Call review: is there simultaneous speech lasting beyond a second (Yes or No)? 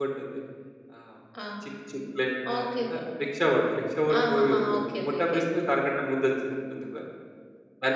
Yes